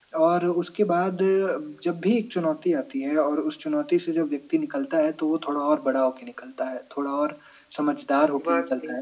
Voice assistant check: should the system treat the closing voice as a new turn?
No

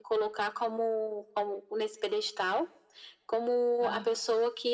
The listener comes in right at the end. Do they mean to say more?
No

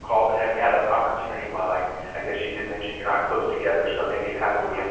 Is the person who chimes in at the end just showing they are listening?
Yes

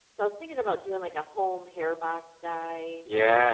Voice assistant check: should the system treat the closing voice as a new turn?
Yes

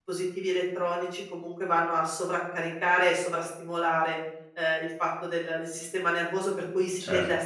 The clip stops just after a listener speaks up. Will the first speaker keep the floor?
Yes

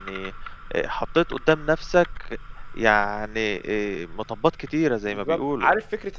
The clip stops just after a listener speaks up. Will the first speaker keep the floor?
No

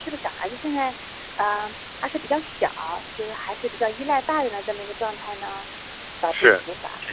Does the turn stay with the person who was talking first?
No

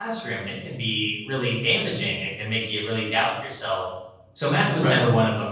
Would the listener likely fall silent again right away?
Yes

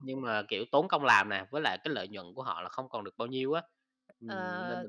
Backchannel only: No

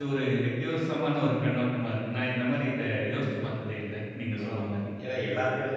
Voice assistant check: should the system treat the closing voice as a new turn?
Yes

